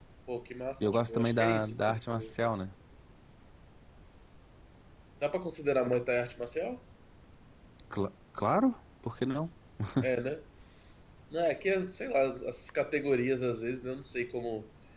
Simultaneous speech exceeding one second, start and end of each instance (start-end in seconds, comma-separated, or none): 0.8-2.3